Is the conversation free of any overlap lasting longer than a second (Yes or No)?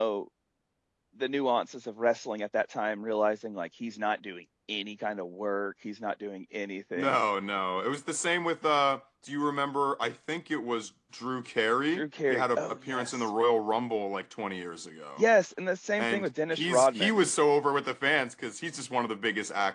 No